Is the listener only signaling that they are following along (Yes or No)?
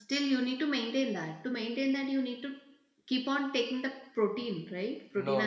No